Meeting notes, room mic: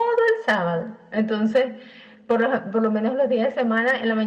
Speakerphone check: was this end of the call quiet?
Yes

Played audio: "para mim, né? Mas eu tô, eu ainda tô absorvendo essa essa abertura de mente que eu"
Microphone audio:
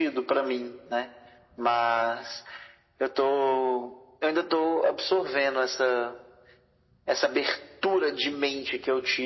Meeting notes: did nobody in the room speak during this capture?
Yes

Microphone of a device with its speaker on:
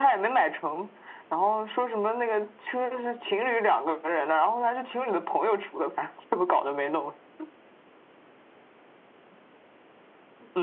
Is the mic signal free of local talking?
Yes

